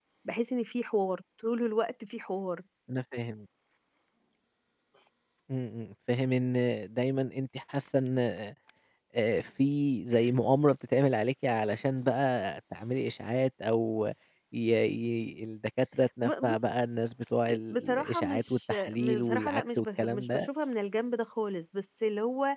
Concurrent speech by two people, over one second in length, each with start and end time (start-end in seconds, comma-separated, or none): 17.5-20.5